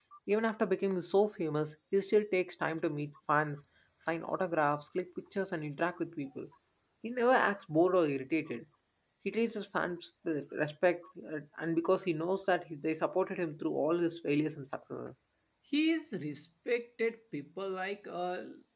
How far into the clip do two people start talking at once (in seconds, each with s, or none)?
none